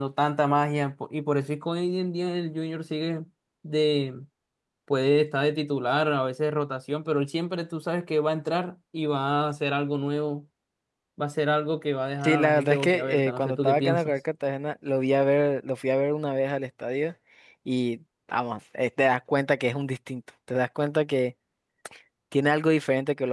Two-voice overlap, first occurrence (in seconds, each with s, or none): 12.2 s